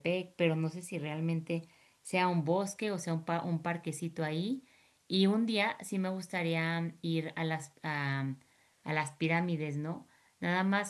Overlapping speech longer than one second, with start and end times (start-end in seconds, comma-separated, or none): none